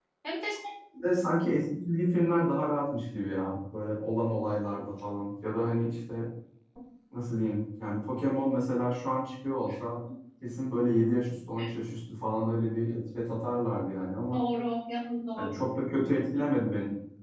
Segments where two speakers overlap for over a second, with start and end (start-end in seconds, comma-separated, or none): none